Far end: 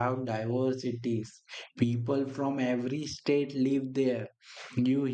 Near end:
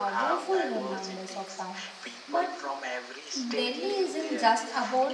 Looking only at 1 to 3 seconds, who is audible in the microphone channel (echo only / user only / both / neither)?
both